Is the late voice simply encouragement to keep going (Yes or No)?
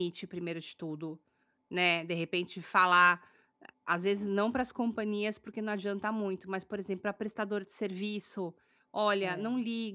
Yes